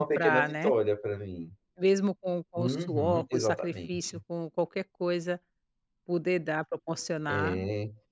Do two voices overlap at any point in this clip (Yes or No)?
Yes